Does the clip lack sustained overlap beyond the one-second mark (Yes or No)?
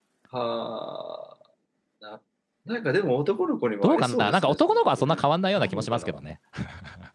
No